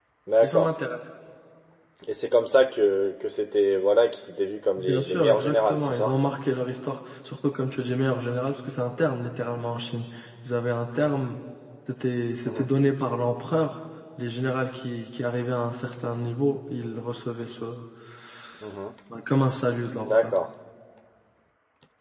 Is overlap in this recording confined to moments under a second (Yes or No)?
No